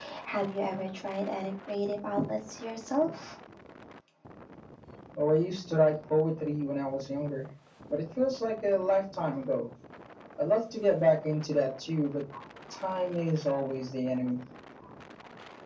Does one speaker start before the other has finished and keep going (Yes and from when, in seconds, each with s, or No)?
No